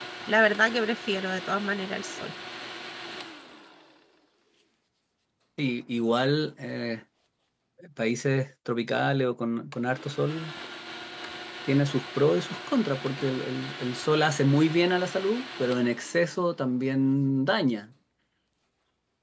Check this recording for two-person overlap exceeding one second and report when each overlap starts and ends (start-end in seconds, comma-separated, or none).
none